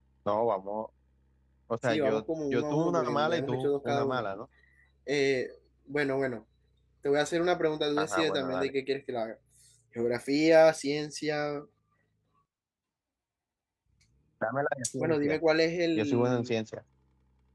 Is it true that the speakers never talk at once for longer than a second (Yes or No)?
No